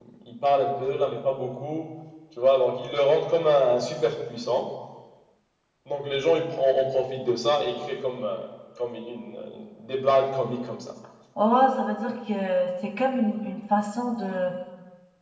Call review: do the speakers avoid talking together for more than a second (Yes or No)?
Yes